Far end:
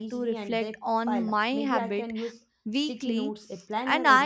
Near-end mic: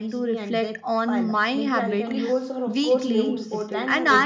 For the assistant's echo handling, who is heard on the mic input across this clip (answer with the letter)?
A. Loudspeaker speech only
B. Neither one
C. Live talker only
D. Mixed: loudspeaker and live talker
D